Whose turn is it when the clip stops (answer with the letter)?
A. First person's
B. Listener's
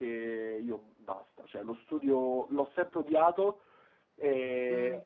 A